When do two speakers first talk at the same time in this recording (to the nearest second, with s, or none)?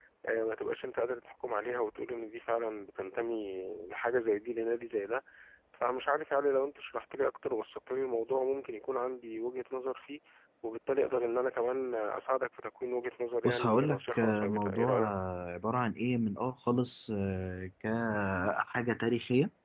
13 s